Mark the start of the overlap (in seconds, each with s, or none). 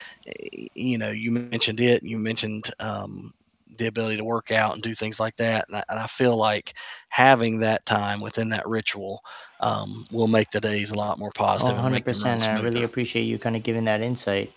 11.6 s